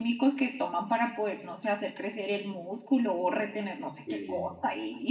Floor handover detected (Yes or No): No